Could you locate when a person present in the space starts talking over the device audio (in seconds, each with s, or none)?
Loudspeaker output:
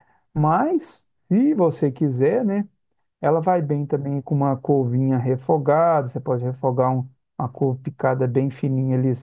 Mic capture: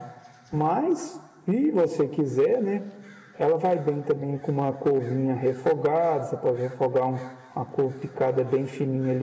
none